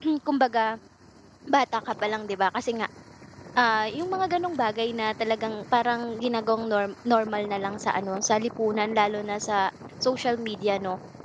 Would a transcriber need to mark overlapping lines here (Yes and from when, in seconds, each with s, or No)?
No